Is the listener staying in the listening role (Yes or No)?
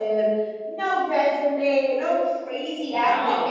No